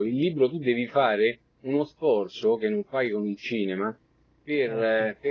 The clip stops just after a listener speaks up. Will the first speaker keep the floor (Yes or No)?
Yes